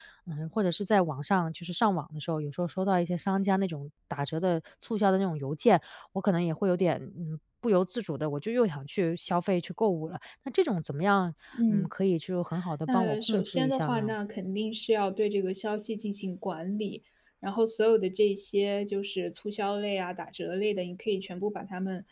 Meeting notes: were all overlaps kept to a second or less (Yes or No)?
No